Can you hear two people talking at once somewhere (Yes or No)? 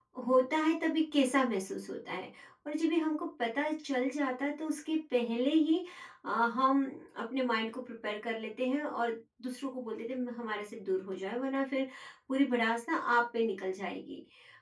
No